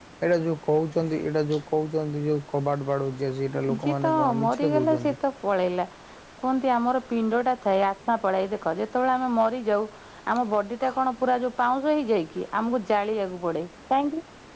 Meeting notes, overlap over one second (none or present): present